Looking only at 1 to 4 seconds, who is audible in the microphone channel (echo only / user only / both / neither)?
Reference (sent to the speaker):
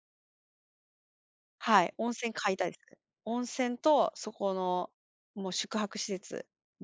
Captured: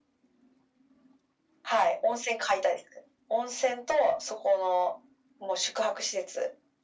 echo only